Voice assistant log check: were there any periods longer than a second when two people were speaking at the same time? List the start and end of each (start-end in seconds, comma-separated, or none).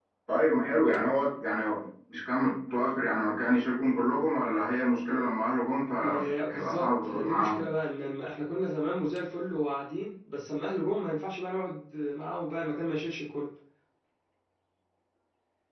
6.0-7.6